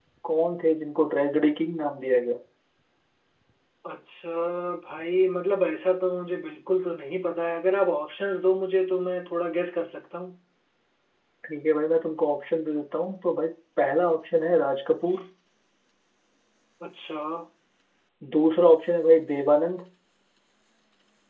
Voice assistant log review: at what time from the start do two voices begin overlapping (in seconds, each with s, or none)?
none